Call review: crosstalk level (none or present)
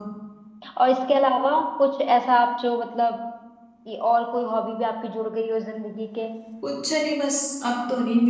none